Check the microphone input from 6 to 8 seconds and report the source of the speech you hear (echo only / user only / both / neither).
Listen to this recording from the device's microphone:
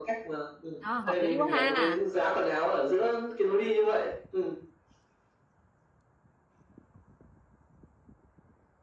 neither